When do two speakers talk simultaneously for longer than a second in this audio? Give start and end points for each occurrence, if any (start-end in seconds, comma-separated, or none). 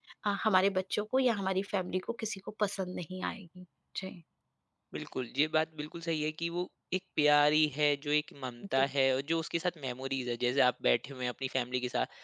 none